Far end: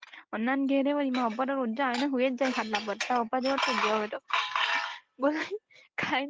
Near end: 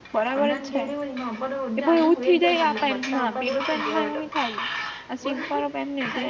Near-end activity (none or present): present